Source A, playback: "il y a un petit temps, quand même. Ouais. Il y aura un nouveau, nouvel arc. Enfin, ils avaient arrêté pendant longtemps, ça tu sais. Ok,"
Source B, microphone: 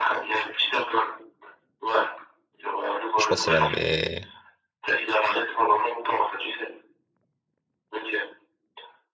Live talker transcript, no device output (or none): je pense que c'est l'un de mes,